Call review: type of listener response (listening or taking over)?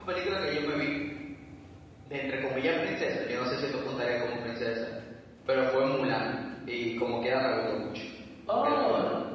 taking over